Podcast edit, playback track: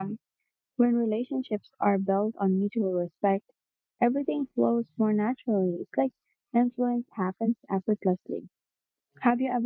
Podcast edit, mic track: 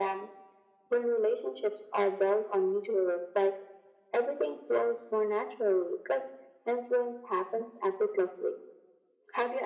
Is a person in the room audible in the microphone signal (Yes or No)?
No